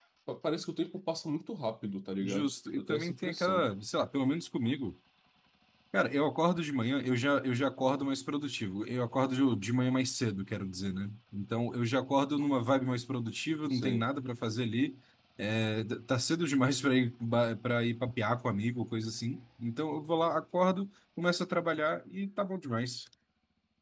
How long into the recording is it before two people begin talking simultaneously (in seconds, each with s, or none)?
2.2 s